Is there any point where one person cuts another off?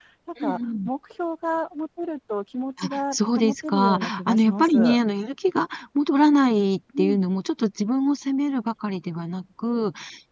Yes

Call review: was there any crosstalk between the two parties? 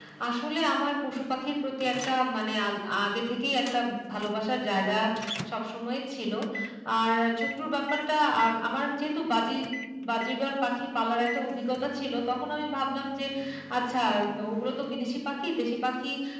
No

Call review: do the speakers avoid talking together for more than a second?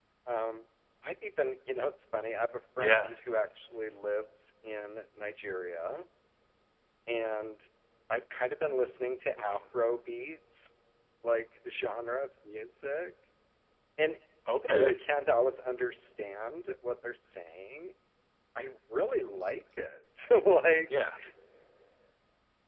Yes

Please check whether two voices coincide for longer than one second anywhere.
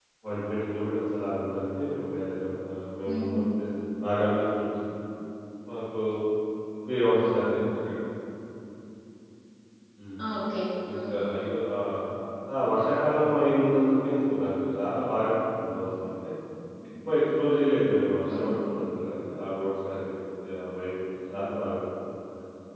No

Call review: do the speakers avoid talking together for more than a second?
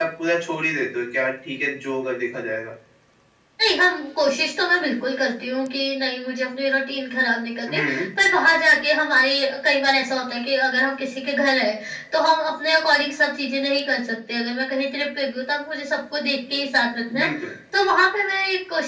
Yes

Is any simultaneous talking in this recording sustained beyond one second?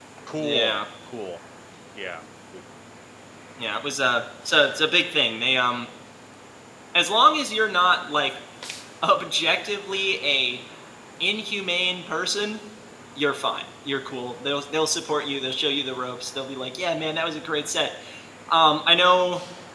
No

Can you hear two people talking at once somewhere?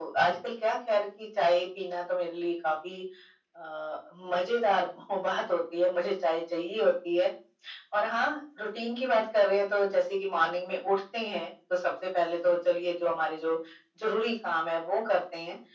No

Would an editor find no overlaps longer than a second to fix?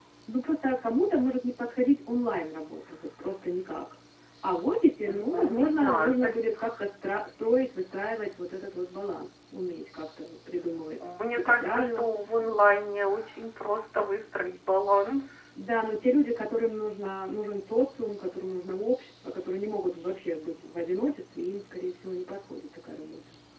No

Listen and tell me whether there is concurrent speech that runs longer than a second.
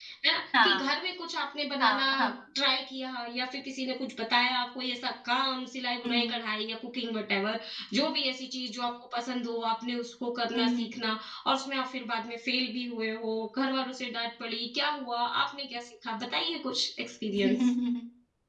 No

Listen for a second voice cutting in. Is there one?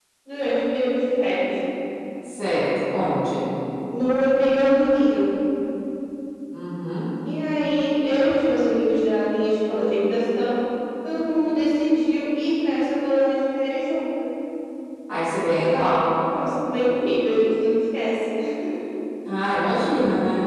No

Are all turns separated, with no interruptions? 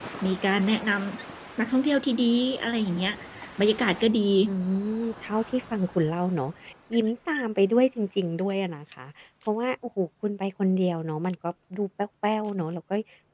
Yes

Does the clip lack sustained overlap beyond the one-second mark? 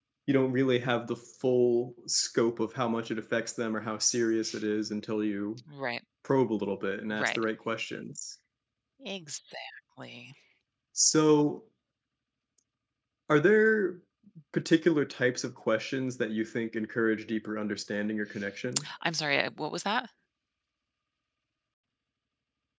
Yes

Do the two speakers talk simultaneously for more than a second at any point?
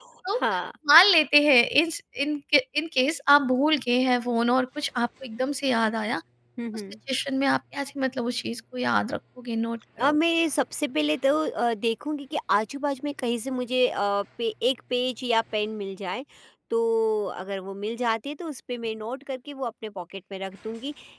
No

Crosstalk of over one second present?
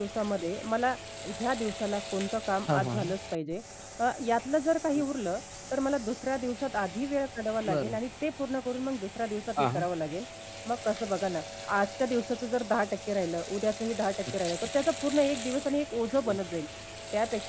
No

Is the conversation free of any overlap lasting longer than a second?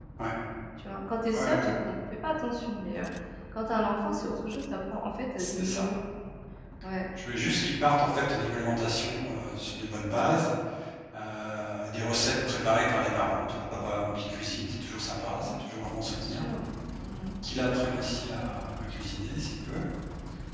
Yes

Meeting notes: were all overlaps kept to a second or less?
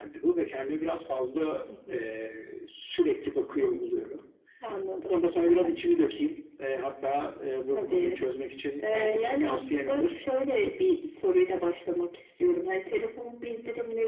No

